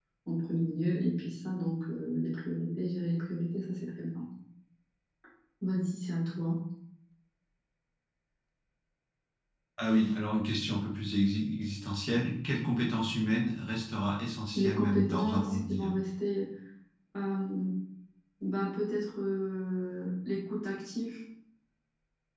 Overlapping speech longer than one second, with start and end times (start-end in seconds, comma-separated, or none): 14.6-15.9